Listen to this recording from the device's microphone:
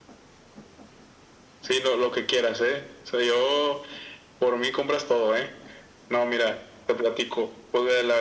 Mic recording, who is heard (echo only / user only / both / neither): echo only